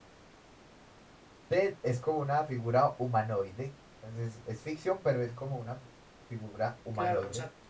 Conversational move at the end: taking over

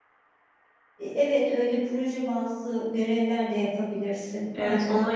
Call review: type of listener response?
taking over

